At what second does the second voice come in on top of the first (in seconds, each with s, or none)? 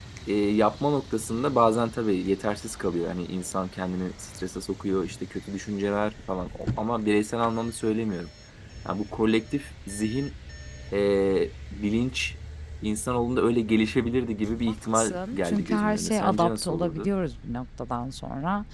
14.9 s